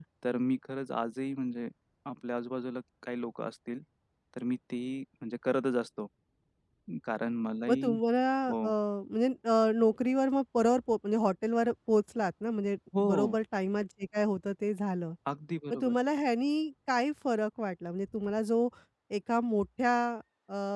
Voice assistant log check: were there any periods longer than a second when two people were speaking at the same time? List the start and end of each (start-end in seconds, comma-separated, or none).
none